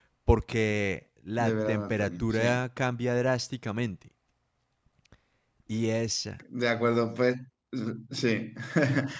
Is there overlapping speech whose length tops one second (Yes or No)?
Yes